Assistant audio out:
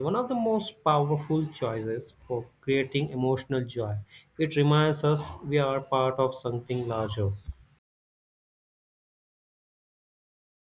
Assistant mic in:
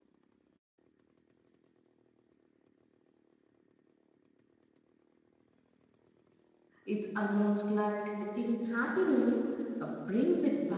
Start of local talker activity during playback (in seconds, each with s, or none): 6.8 s